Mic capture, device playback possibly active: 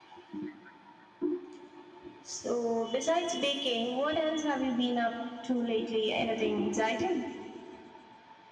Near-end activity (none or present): none